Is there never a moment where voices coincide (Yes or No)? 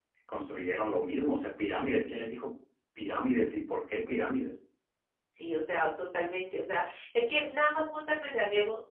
Yes